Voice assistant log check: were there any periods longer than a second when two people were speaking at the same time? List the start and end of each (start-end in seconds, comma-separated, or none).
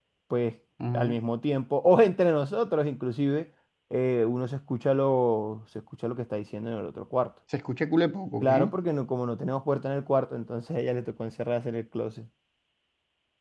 none